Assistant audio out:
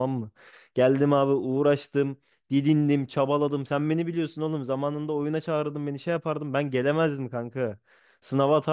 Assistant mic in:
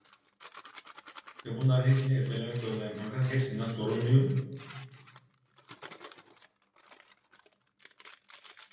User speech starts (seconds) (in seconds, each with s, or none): 1.4 s